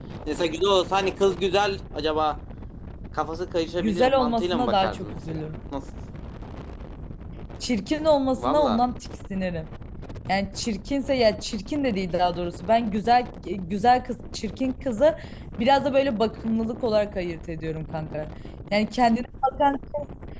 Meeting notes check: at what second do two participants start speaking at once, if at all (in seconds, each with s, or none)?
3.8 s